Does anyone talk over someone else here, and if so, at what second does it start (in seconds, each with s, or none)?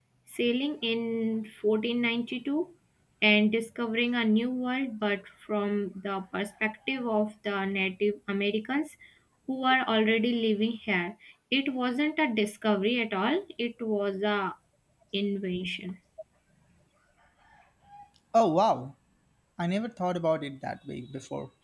none